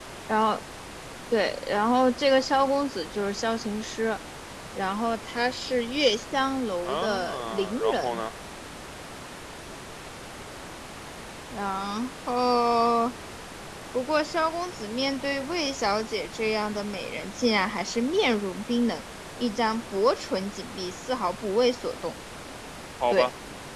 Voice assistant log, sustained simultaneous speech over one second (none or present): present